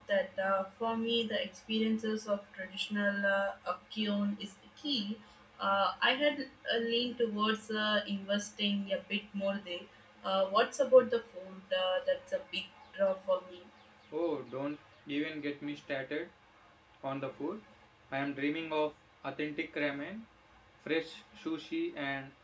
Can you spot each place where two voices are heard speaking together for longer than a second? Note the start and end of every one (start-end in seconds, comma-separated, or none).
none